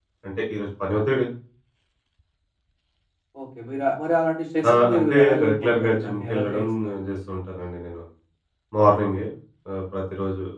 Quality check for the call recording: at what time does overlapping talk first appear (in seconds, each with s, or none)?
4.6 s